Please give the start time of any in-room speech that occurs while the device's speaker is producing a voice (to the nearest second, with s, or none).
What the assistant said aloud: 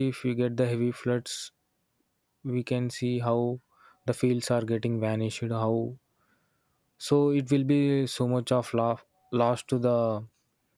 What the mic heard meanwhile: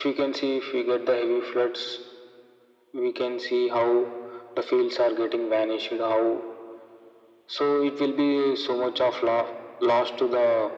none